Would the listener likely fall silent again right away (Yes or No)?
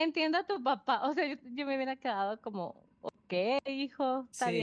No